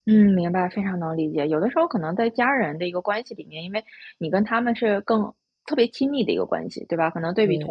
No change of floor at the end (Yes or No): Yes